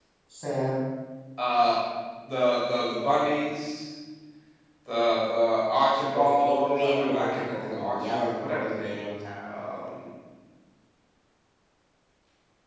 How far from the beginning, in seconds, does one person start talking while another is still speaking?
6 s

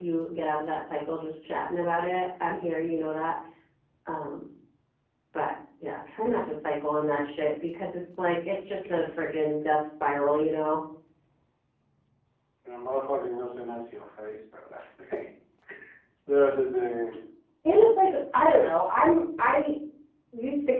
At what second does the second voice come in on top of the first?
none

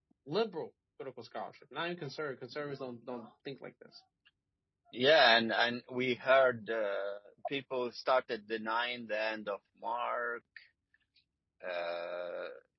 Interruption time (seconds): none

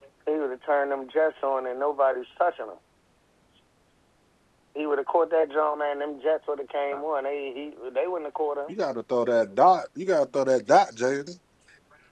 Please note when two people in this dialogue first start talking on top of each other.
none

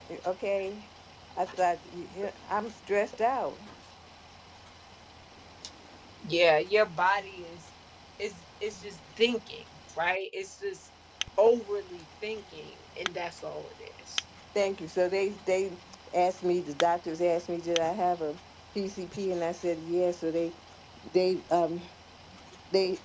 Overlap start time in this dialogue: none

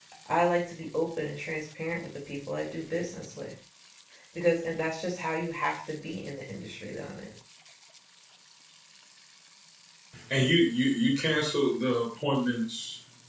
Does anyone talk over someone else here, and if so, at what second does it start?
none

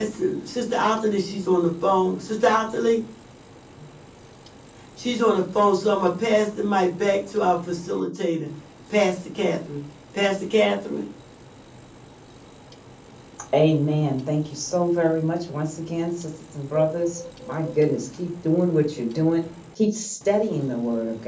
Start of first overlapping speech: none

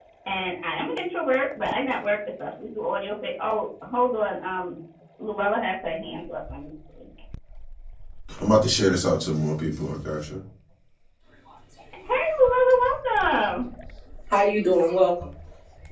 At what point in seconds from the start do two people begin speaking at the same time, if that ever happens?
none

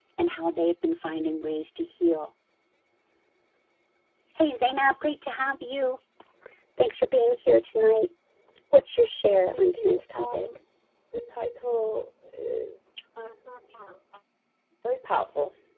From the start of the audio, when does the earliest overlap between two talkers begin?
9 s

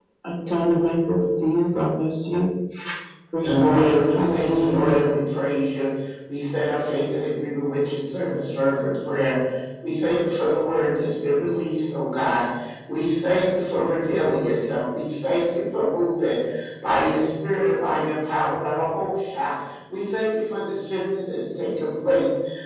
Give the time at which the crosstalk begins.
3 s

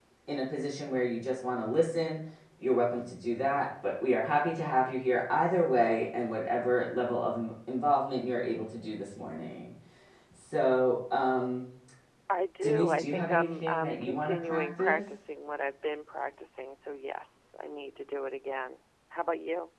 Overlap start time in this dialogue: 13 s

